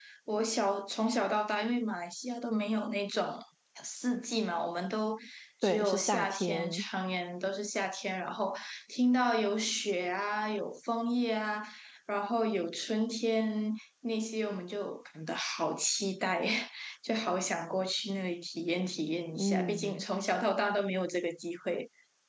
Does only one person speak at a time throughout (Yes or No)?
No